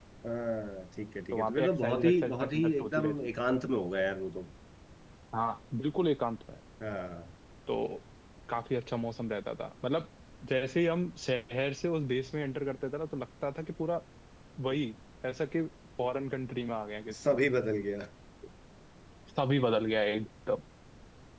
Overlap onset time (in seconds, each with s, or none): 1.3 s